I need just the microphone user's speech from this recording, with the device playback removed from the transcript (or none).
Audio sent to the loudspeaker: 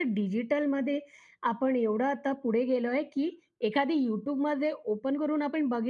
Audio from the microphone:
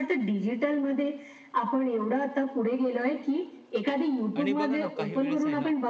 आणि बघा ना, काही वेळेस आहे ना,